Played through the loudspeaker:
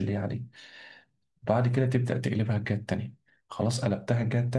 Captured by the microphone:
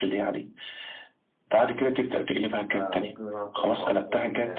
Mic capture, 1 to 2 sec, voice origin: echo only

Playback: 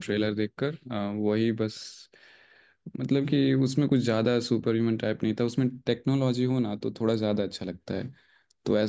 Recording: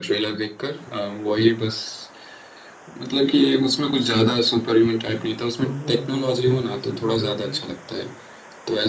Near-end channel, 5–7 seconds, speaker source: both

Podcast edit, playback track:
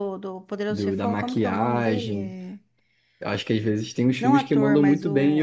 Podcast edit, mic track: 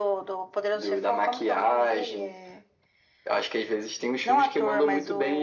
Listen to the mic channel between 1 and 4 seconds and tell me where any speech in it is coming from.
echo only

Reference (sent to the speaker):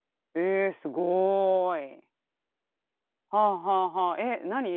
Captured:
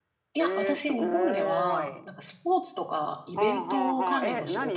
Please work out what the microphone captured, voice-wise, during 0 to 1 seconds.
both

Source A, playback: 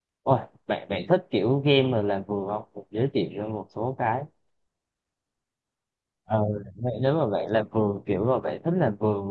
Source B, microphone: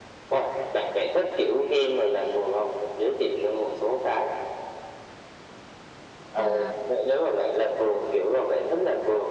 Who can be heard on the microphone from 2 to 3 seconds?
echo only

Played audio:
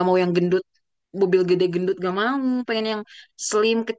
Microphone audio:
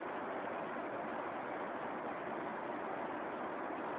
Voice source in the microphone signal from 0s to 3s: neither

